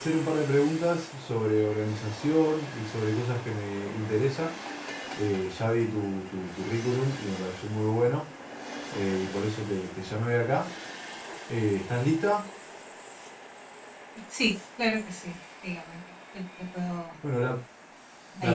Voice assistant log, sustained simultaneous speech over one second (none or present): none